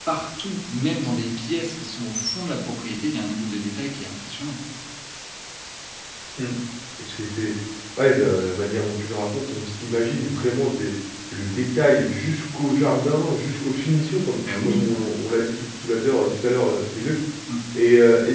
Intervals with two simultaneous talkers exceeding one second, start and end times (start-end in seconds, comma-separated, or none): none